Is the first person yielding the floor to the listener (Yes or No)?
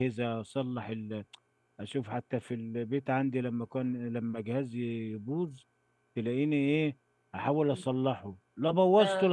No